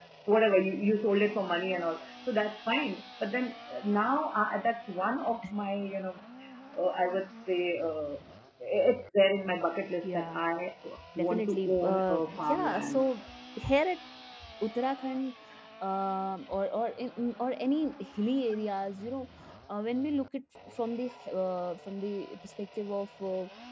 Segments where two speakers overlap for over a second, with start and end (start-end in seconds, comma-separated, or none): 11.2-13.0